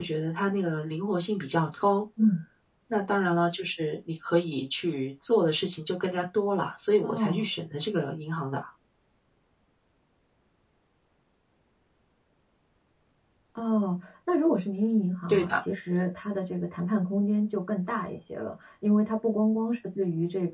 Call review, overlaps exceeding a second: none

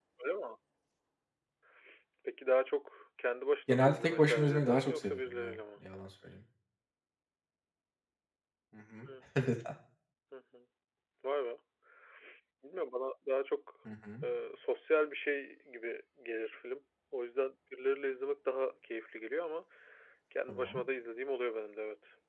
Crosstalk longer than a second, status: present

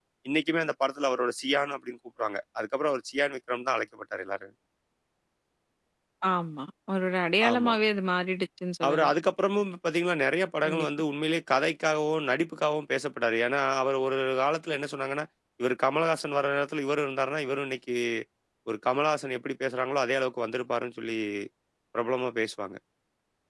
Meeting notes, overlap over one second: none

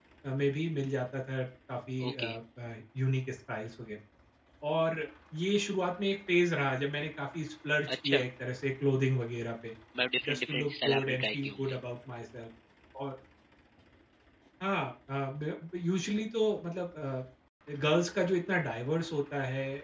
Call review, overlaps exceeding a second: present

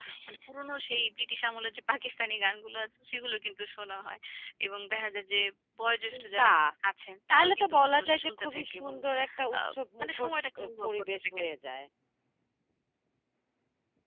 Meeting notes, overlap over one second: present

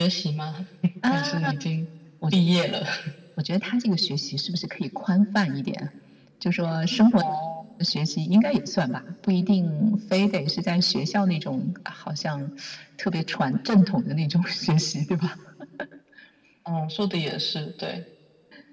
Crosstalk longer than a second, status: none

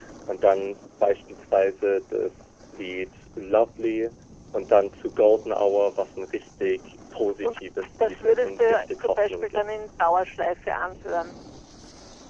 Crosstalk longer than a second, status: present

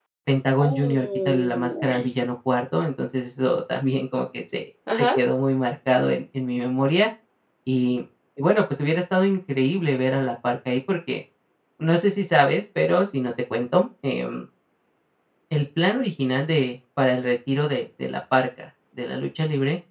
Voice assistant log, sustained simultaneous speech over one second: present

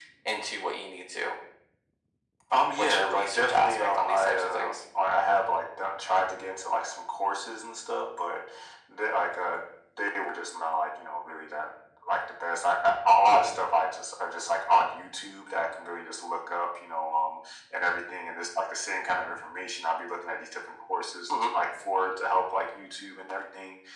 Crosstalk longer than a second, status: present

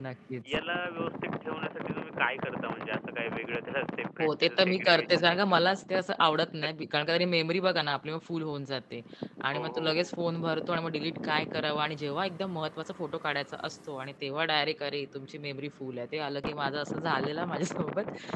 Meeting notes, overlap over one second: present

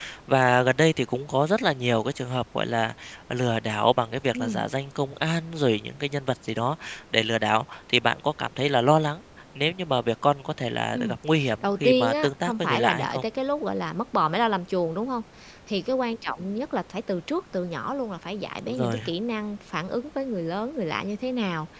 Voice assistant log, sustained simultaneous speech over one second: present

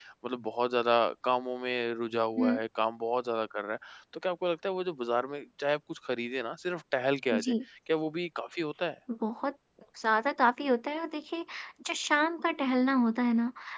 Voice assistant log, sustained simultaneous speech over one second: none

